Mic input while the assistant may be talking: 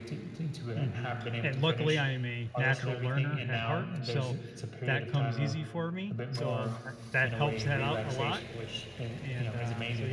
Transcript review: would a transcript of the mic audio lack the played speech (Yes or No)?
No